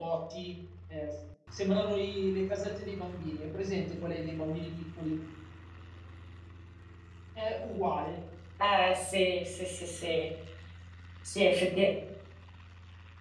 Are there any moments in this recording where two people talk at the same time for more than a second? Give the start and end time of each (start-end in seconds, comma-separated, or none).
none